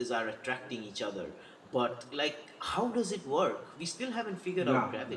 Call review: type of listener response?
taking over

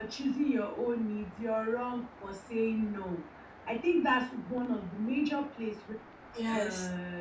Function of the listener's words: listening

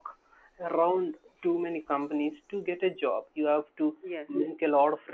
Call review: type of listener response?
listening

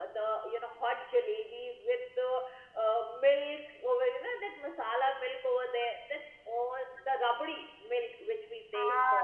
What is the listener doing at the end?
taking over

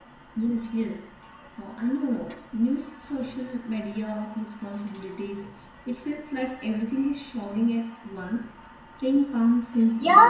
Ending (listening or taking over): taking over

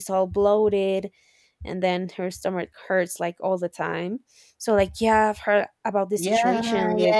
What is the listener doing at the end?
taking over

